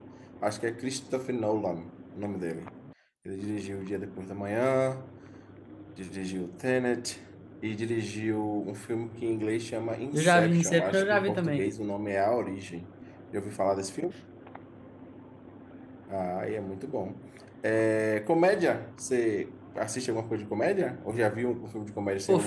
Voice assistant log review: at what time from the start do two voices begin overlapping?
10.1 s

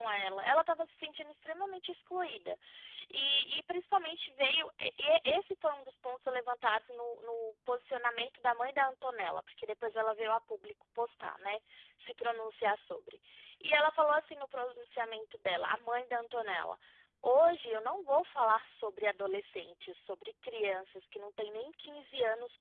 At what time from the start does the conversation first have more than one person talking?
none

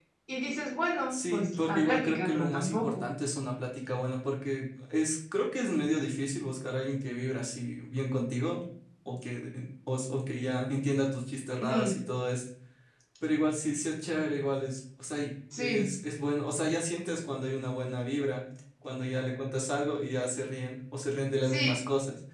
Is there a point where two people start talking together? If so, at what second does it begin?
1.1 s

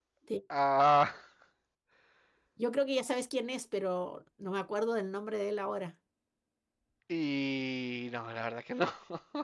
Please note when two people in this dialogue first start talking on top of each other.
none

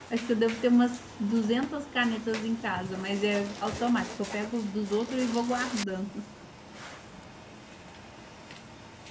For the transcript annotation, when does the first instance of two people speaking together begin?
none

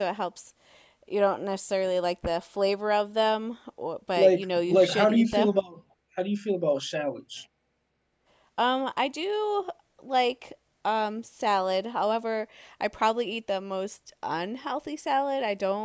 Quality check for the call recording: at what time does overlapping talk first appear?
4.2 s

